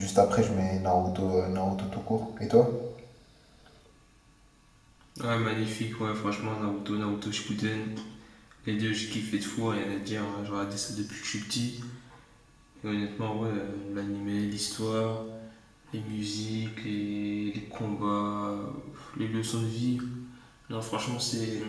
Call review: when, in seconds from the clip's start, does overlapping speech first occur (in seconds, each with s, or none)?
none